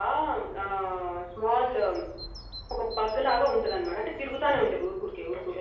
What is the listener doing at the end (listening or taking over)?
taking over